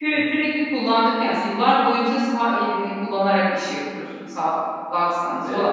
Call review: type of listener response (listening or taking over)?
listening